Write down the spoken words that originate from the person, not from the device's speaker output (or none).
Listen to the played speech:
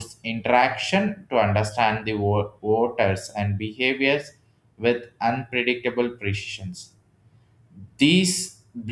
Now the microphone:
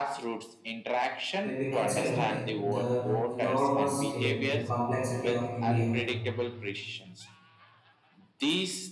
when we consider the enormous scale and complexity of India,